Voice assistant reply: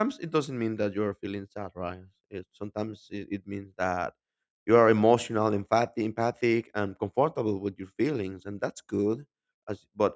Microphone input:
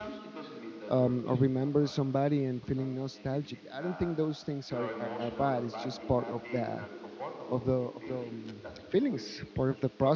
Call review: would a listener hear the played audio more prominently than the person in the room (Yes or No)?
No